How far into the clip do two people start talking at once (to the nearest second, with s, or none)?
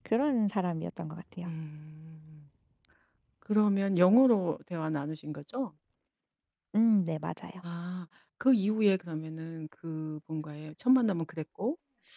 none